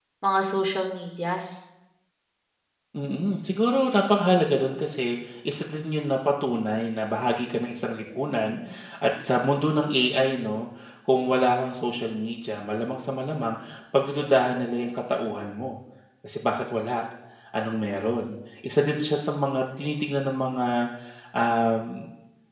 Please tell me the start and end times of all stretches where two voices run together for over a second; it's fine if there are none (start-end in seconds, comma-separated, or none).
none